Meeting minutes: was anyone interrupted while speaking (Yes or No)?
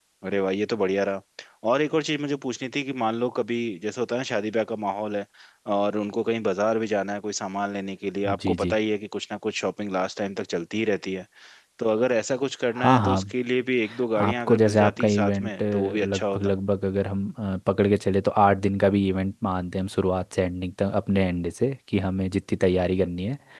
Yes